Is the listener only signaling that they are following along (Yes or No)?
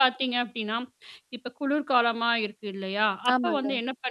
Yes